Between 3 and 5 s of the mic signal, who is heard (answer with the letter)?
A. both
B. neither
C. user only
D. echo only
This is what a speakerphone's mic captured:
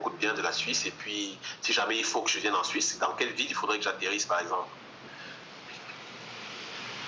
D